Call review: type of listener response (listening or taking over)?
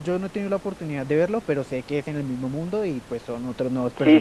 taking over